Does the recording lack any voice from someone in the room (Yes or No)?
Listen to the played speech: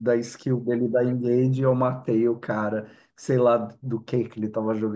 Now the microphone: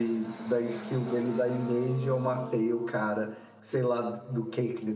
Yes